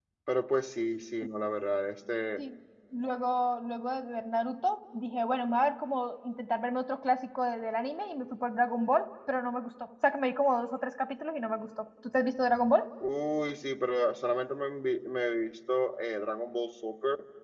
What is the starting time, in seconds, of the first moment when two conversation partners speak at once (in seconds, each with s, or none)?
none